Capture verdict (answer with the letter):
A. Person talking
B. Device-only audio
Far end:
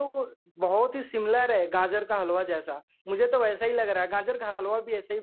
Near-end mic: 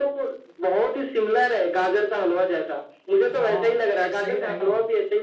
A